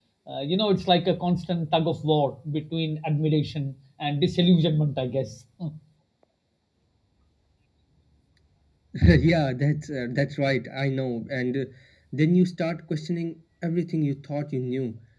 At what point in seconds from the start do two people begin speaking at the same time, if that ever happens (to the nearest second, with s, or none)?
none